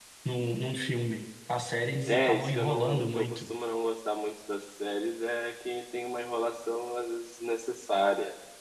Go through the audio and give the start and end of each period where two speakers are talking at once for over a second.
2.1-3.5

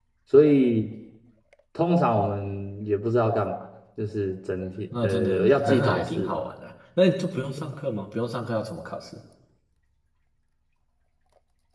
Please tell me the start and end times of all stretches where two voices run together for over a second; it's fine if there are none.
5.0-6.4

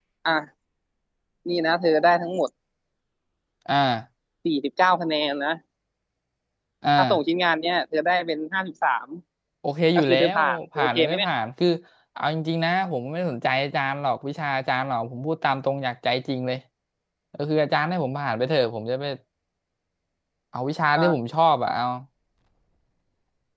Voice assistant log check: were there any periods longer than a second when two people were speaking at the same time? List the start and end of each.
10.0-11.3

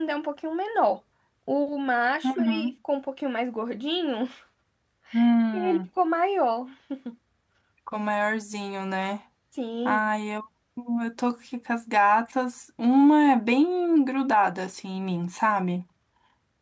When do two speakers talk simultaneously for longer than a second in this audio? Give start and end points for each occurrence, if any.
none

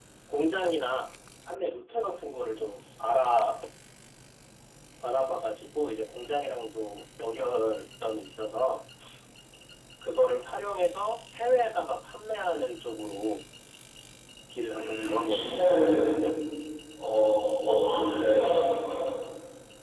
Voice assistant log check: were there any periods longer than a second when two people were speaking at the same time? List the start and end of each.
14.7-16.3

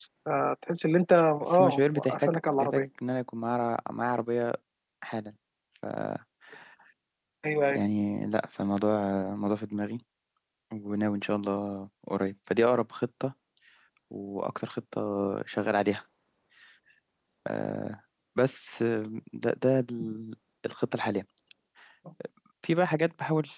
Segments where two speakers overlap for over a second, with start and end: 1.5-2.9

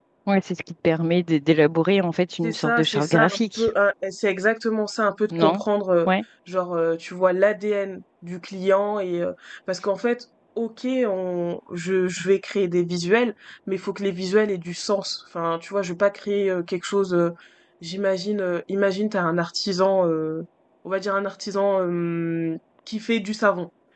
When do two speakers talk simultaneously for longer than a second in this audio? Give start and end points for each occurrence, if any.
2.4-3.7

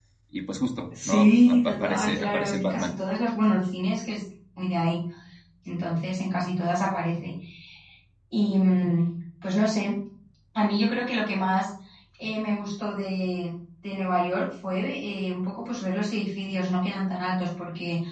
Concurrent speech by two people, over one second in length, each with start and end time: 0.9-3.0

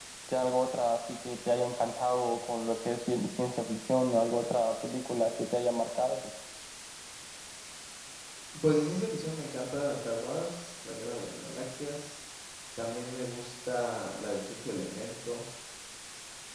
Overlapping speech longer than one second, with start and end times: none

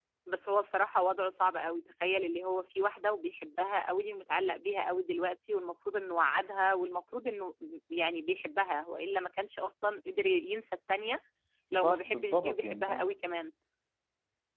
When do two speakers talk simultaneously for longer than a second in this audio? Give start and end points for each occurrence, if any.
11.7-13.1

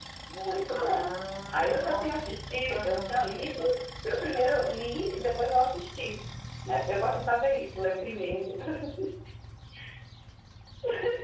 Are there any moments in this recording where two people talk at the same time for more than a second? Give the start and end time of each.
1.5-3.4

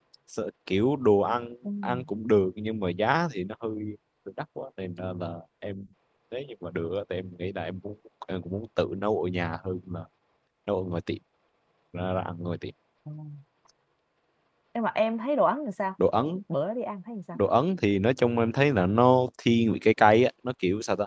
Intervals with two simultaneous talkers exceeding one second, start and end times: none

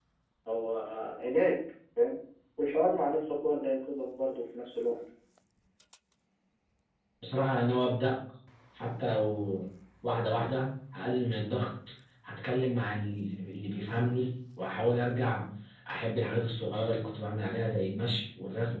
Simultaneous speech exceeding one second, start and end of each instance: none

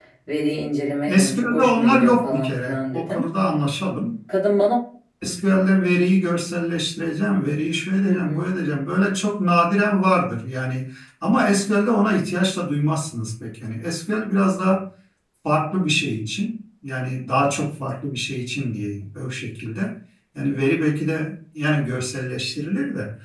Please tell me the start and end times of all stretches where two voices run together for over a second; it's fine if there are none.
1.1-3.2

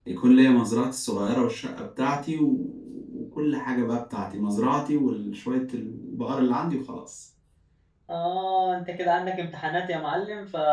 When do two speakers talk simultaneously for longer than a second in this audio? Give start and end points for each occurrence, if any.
none

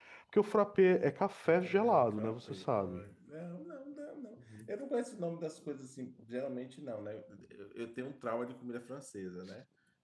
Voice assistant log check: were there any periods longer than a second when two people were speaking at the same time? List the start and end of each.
1.4-3.1

